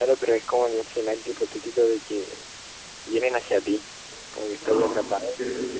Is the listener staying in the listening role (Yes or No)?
No